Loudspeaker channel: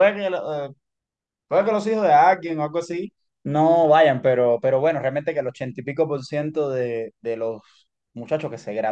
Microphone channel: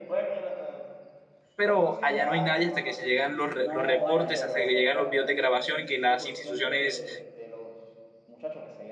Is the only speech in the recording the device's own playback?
No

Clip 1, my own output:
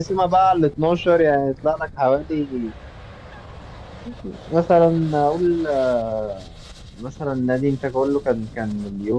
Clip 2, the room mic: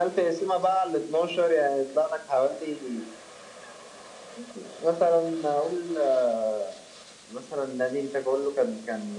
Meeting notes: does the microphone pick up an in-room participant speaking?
No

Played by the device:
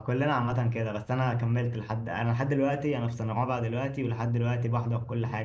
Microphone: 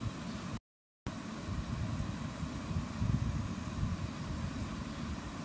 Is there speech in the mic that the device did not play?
No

